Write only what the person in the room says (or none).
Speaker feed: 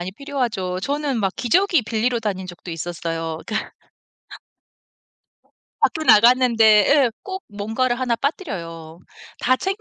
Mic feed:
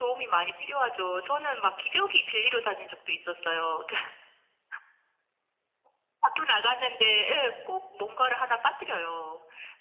none